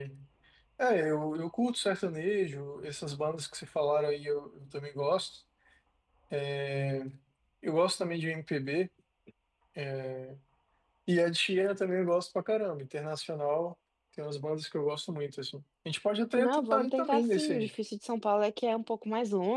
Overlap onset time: 16 s

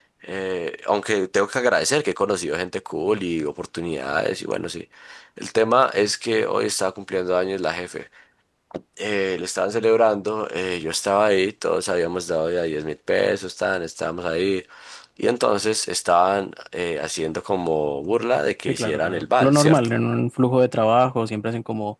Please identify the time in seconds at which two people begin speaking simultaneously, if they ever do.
19 s

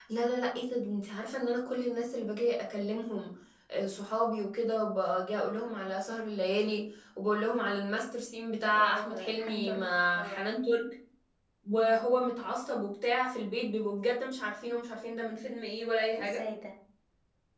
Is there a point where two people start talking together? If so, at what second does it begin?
9 s

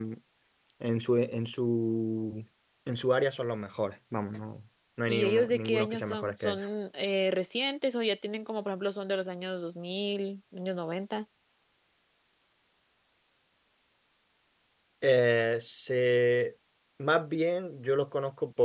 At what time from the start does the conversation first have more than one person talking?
5 s

